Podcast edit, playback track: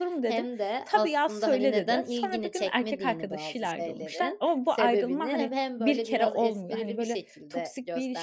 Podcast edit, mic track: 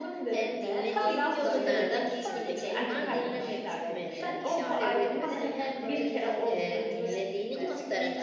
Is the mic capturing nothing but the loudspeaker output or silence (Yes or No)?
No